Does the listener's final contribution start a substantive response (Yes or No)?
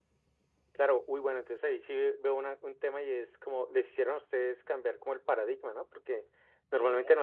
No